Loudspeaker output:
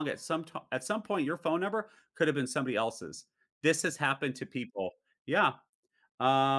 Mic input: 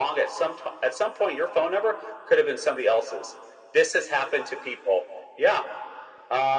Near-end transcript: none

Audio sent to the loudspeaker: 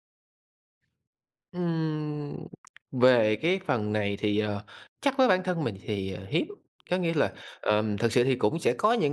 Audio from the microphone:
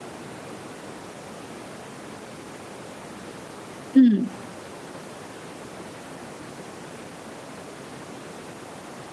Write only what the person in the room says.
Ừm,

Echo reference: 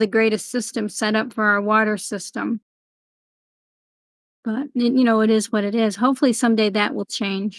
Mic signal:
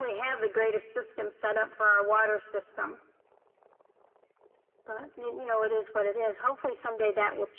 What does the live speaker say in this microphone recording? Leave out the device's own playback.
none

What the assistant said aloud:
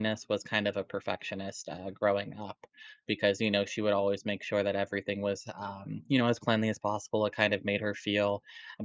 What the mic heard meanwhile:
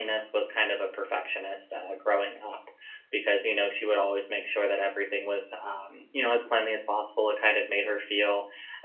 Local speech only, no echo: none

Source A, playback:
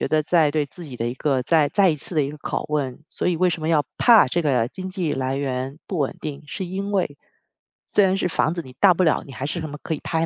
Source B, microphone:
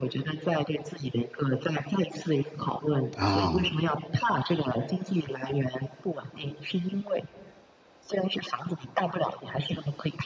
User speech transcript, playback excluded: 啊。

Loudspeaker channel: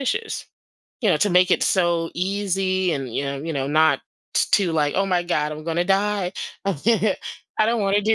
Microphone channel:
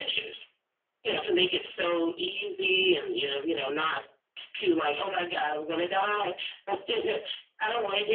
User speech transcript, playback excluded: none

